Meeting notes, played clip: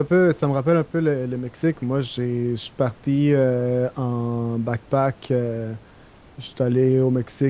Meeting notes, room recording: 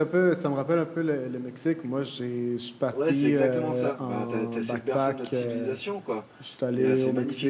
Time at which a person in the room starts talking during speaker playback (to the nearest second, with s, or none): 3 s